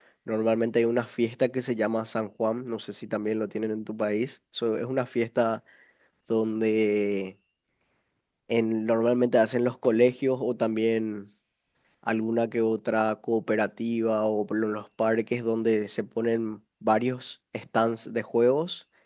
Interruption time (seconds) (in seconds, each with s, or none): none